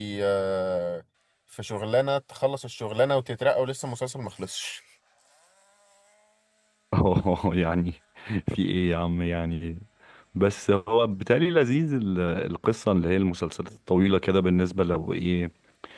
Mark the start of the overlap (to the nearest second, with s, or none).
none